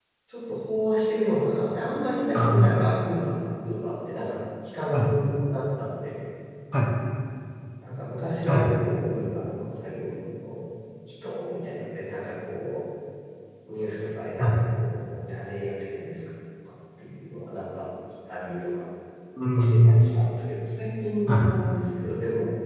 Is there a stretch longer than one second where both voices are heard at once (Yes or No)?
No